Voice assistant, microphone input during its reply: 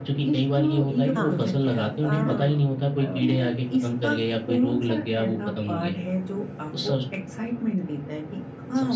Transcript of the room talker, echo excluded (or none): हाँ, हाँ। और